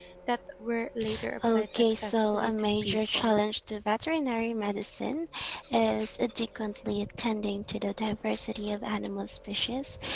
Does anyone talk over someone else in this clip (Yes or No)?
Yes